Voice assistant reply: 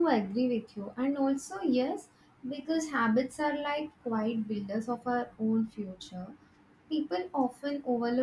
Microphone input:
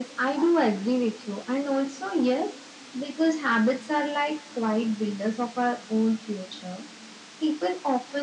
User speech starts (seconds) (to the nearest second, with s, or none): none